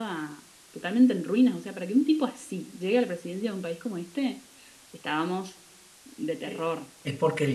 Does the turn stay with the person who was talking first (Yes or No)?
No